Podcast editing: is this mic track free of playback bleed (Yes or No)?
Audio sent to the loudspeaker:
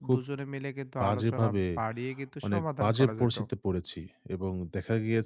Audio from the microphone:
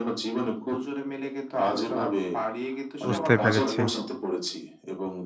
No